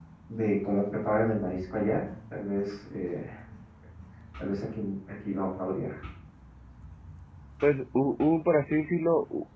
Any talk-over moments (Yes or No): No